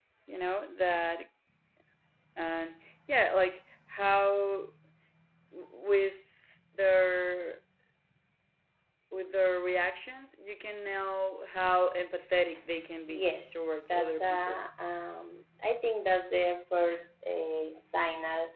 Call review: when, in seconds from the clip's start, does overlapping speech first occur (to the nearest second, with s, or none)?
13 s